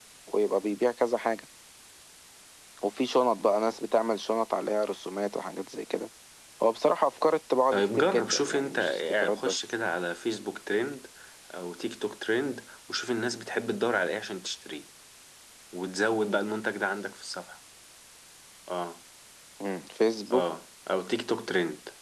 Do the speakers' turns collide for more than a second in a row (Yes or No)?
Yes